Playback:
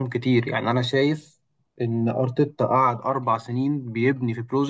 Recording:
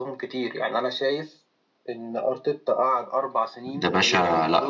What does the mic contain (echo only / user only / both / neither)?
both